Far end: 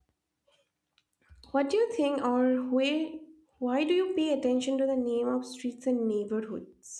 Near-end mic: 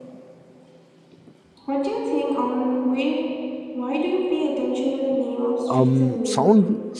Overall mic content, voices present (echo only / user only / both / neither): both